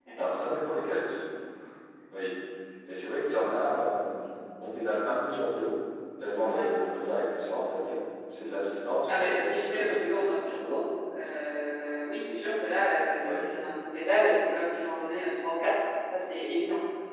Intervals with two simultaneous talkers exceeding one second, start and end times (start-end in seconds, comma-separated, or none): 9.1-10.3